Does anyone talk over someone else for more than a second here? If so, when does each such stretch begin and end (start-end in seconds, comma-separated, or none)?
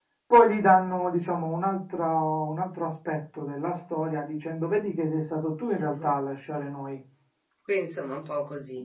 none